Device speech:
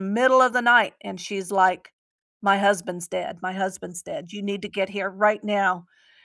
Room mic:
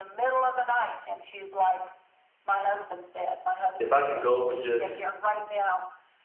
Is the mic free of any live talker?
No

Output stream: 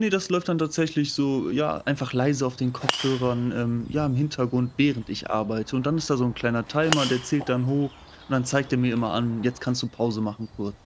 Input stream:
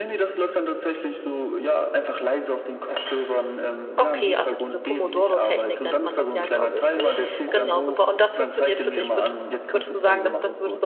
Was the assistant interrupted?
Yes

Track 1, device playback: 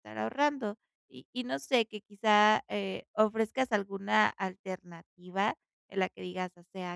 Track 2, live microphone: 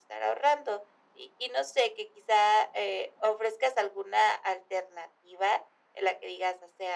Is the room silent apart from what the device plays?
Yes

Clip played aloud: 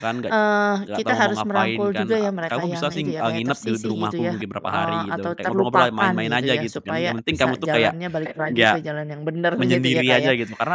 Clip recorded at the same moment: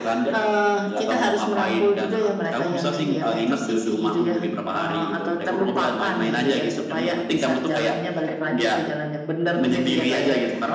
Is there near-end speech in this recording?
No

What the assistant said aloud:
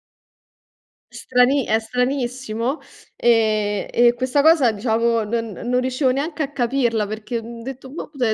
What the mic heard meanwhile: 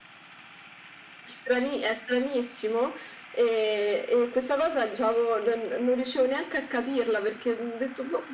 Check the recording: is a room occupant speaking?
No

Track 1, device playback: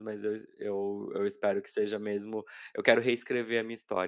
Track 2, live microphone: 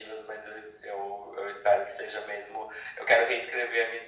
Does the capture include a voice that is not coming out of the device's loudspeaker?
No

